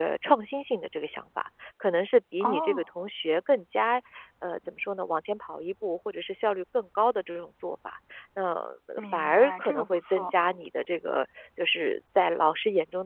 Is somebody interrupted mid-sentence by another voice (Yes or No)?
Yes